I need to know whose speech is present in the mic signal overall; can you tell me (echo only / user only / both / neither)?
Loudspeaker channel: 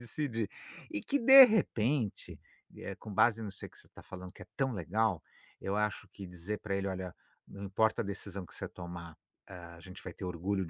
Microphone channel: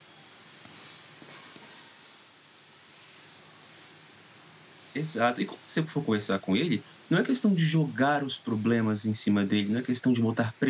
user only